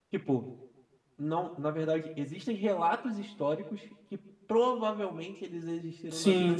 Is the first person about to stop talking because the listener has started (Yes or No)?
Yes